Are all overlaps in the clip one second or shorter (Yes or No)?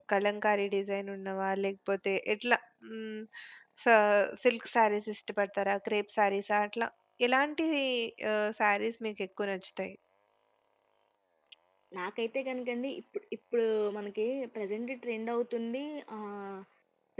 Yes